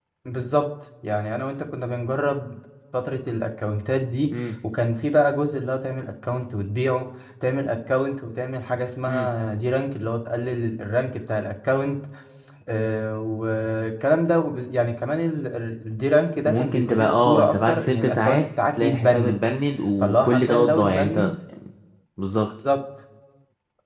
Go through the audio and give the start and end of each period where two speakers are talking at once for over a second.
16.5-19.4, 20.0-21.3

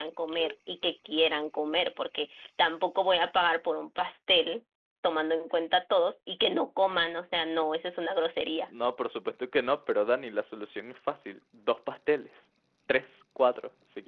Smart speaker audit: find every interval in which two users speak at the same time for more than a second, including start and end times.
none

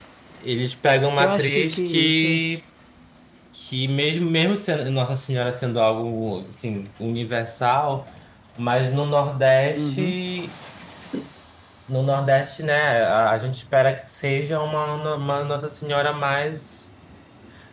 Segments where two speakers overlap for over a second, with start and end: 1.2-2.4

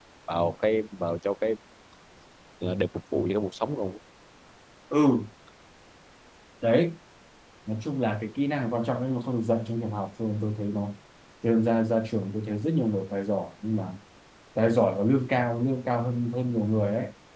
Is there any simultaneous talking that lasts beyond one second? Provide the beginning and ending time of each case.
none

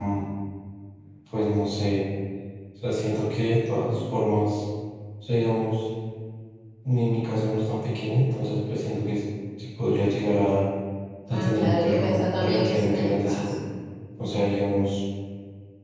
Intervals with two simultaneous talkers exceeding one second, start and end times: 11.3-13.6

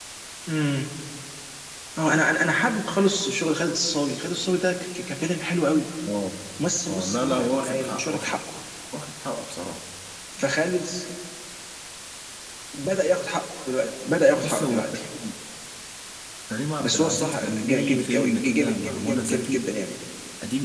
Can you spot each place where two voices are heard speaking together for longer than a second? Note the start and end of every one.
6.9-8.4, 16.8-19.7

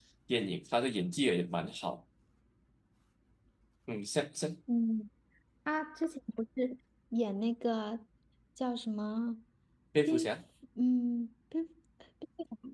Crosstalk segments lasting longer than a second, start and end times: none

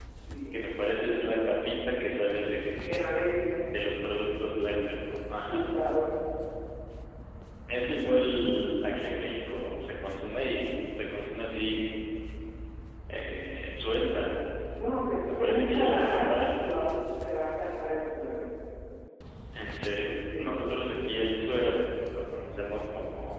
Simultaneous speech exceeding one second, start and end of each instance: 15.4-16.8

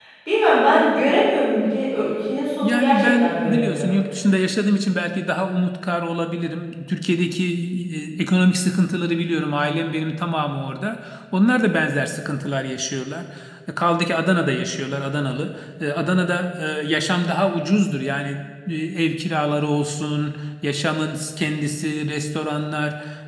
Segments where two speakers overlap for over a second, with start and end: 2.6-4.0

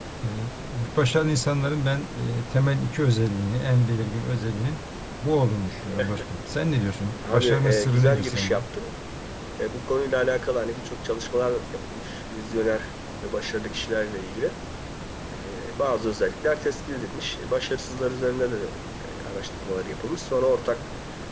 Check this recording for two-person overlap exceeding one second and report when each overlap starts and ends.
7.3-8.5

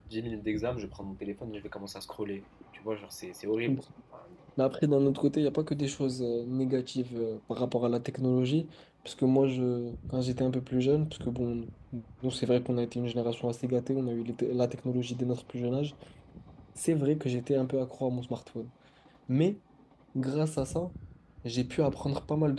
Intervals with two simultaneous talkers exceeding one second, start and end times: none

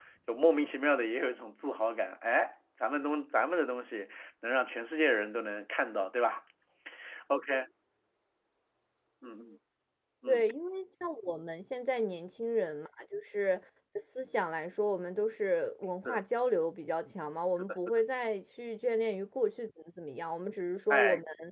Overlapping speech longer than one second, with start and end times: none

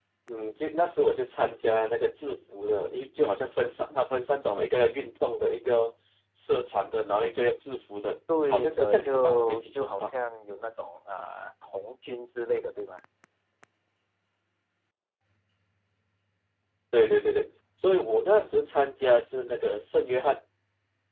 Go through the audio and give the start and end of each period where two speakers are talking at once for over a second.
8.4-10.1

